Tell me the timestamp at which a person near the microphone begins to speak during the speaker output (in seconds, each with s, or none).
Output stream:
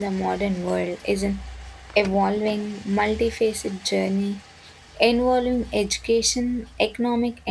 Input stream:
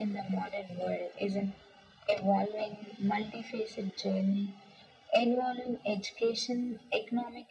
none